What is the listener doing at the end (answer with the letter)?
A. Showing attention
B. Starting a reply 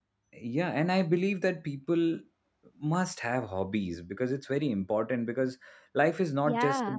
A